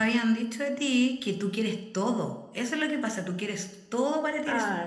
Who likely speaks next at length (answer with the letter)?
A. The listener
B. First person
A